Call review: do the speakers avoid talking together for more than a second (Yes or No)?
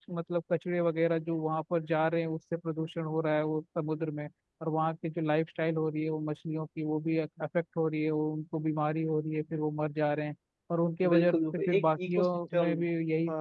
No